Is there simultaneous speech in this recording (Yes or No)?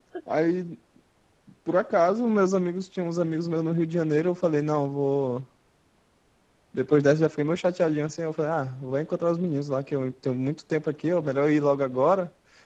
No